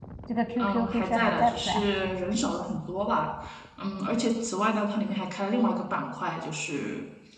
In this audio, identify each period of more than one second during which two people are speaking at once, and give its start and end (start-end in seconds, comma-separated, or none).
0.6-1.8